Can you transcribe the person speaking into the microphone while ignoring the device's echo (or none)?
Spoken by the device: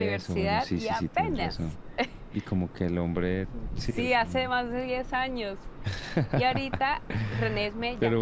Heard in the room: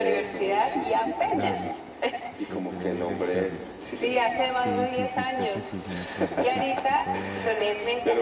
claro. Entonces prefiere evitarlo. Sí, sí, sí, creo que sí, sí me acuerdo. Sí, porque él podía ver